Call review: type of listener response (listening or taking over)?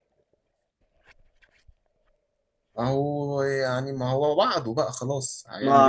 taking over